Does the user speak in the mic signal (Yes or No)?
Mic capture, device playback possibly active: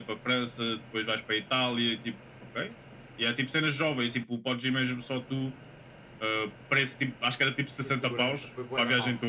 Yes